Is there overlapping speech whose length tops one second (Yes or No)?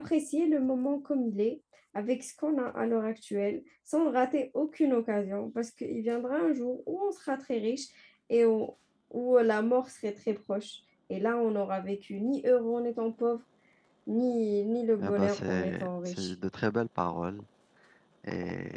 Yes